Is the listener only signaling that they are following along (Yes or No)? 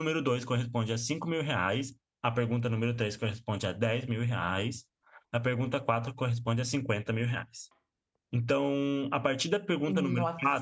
Yes